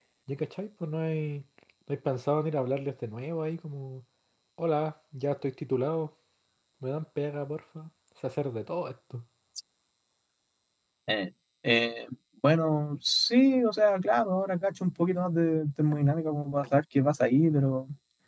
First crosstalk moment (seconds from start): none

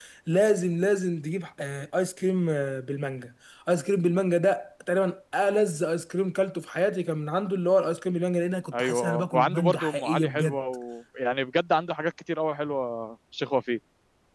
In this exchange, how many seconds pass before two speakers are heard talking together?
8.7 s

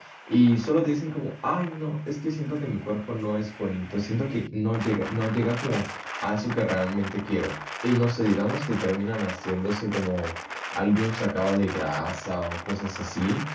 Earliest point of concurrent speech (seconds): none

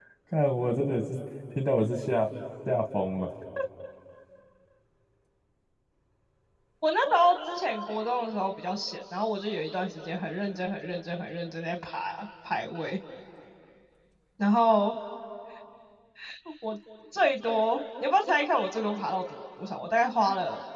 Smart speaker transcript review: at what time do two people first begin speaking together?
none

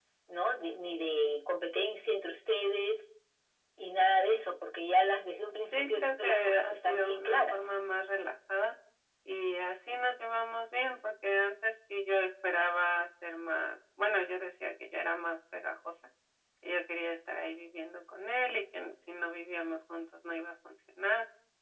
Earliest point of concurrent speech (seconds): 5.7 s

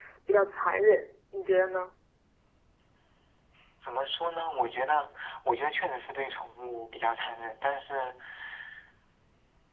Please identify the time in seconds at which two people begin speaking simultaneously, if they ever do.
none

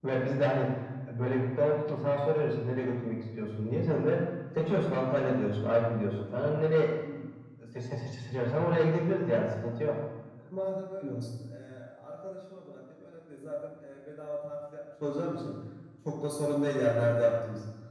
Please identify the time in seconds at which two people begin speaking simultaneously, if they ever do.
none

